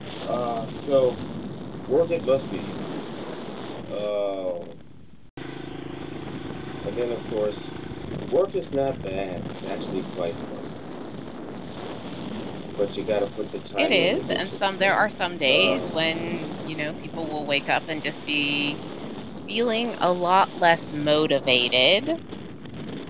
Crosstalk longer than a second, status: present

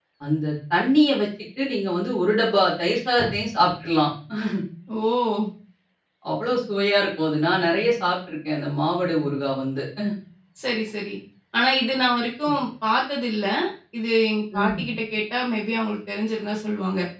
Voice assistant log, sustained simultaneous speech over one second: none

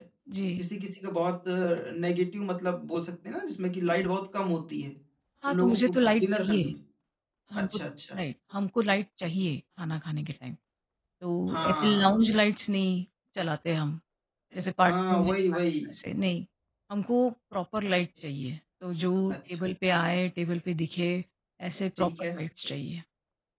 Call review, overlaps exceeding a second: present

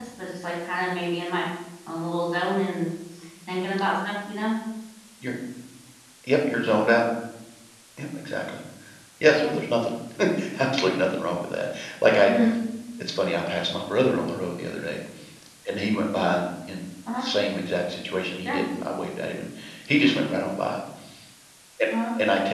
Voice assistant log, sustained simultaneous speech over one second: none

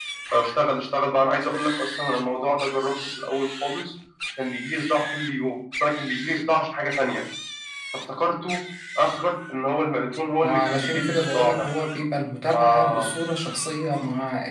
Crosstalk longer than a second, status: present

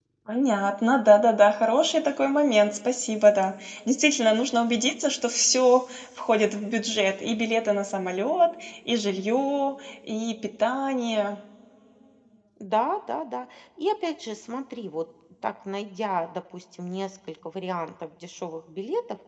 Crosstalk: none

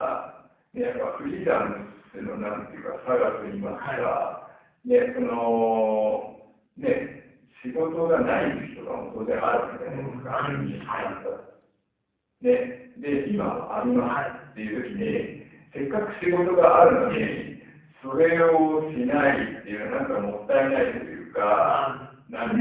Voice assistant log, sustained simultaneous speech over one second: present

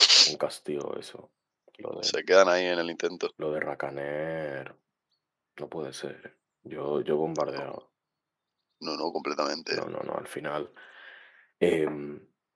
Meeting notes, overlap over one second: none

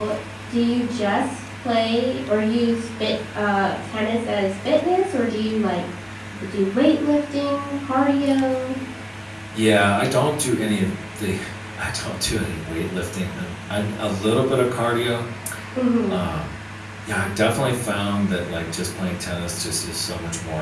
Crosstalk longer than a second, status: none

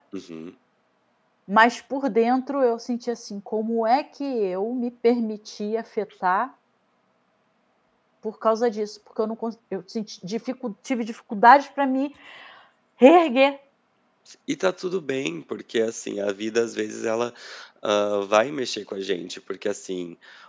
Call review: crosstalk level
none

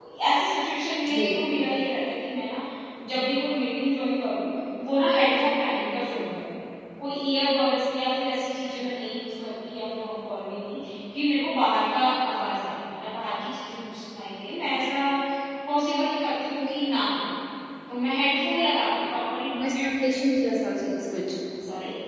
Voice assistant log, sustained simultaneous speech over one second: none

